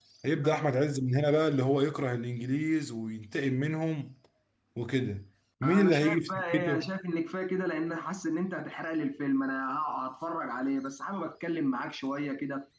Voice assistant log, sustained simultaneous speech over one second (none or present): present